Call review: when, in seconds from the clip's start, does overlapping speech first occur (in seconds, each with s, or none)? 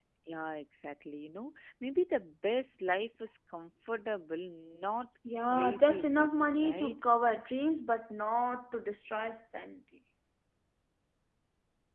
5.2 s